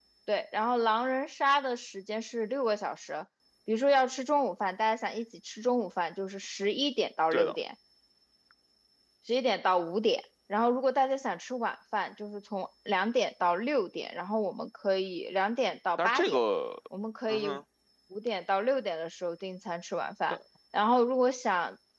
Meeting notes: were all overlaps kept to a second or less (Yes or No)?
Yes